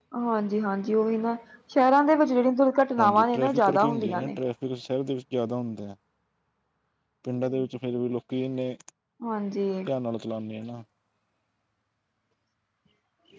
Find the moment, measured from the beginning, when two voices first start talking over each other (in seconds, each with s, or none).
3.0 s